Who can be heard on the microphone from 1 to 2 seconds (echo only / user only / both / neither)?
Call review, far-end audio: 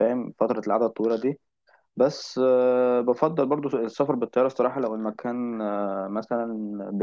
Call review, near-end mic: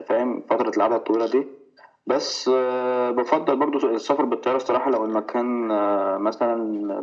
echo only